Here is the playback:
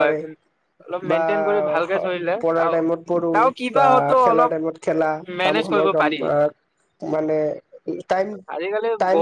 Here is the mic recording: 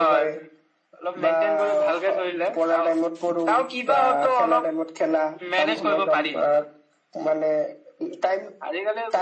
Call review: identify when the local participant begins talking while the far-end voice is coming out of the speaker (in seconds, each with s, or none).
none